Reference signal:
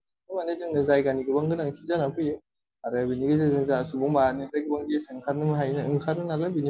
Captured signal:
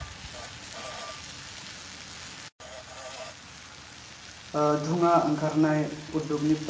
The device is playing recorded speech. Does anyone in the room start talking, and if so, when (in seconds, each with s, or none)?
4.6 s